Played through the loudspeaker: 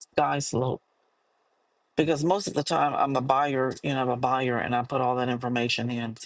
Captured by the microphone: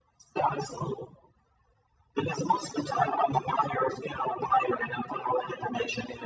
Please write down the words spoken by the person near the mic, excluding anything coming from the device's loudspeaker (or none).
none